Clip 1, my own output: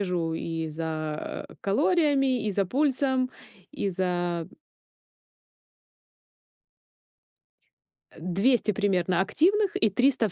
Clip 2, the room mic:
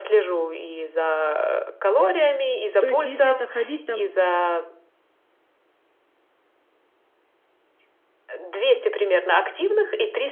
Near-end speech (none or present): present